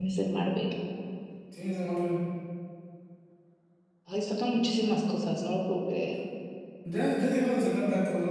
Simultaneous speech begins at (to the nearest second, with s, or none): none